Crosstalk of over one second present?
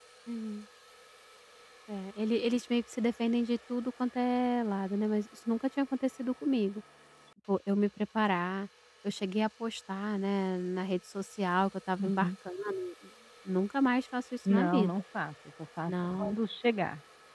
No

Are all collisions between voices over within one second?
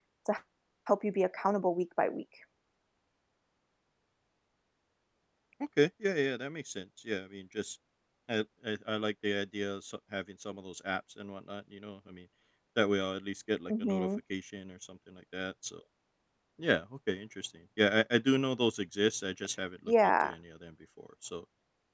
Yes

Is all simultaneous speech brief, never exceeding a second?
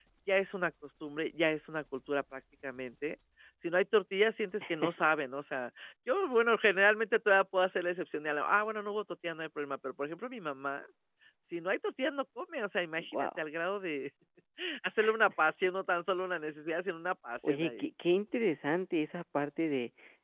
Yes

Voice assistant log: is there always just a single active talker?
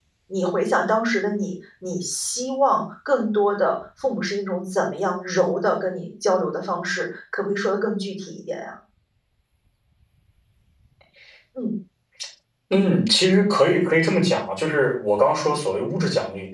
Yes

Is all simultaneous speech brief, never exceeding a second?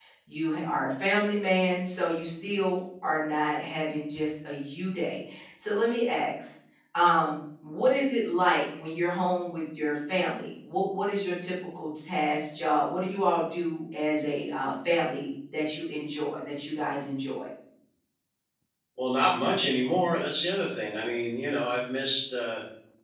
Yes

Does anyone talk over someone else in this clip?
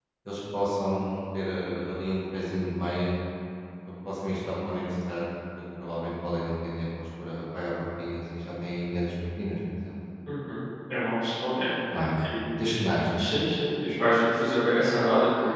No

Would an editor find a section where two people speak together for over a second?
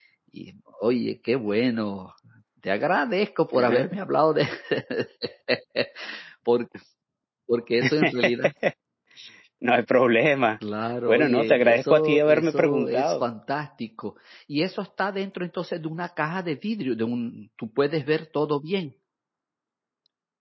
Yes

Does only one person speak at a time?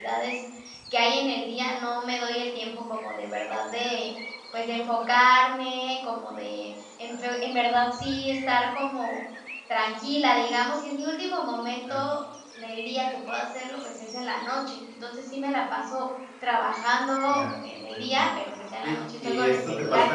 No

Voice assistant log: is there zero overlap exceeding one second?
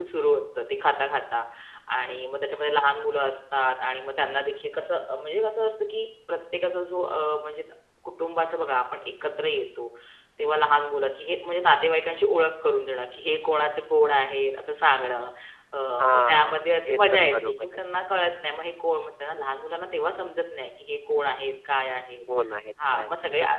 No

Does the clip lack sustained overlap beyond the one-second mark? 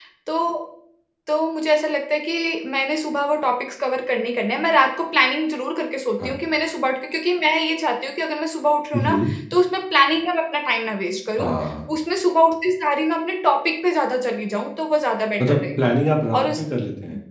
Yes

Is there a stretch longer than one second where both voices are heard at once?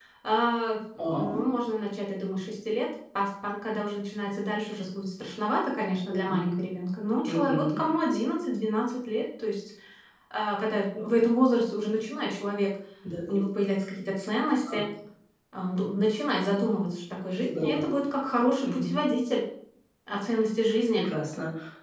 No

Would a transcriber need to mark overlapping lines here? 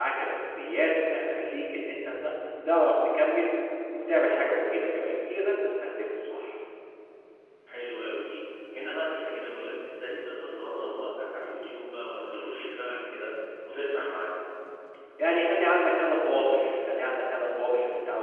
No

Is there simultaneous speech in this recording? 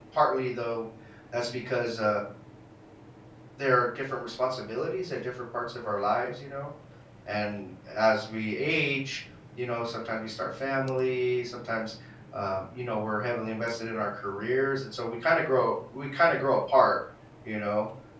No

